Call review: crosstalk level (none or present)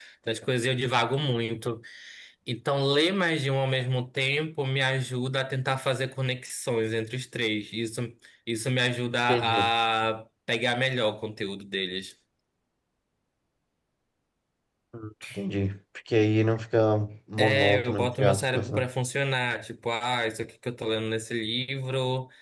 present